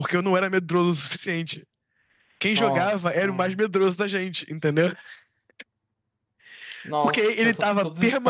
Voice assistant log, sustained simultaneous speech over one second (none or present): present